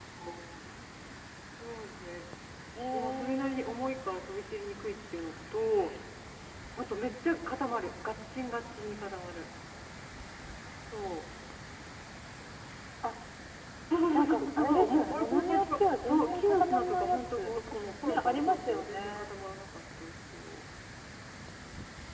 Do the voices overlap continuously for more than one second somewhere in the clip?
Yes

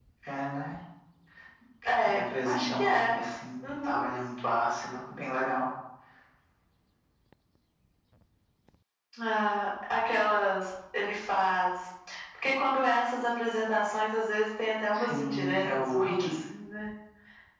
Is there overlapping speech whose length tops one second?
Yes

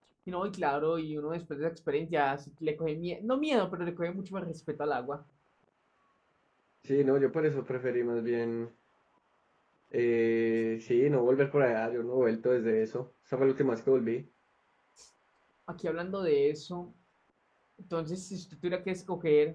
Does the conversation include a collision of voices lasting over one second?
No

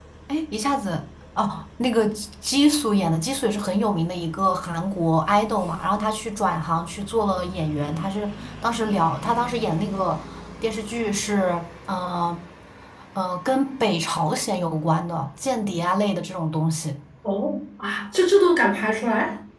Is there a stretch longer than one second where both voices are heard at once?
No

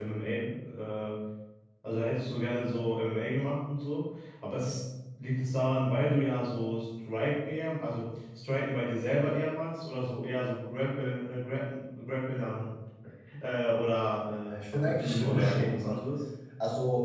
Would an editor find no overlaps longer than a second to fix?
No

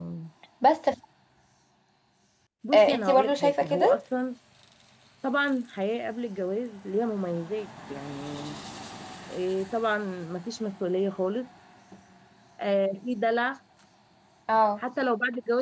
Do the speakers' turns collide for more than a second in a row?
Yes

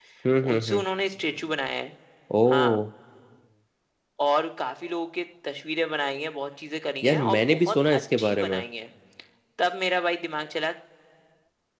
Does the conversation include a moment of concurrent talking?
Yes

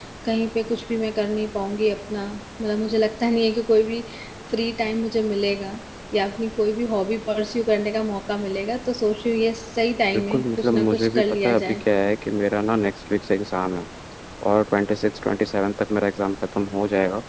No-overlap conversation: No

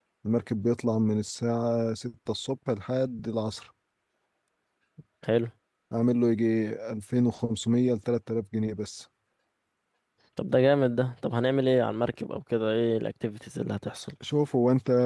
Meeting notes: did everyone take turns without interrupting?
Yes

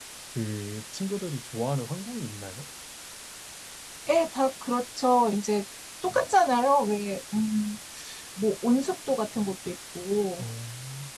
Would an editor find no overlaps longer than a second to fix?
Yes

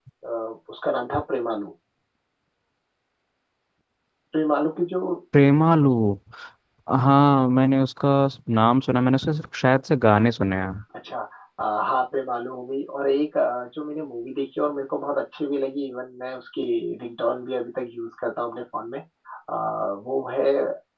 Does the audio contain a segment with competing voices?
No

